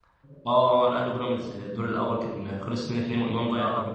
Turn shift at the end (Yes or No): Yes